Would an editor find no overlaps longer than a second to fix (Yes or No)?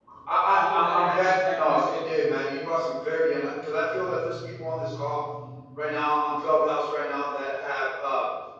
No